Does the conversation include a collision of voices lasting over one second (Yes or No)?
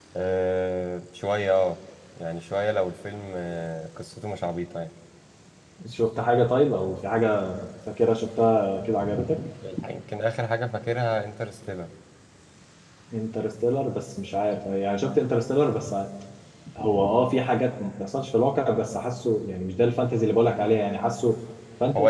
No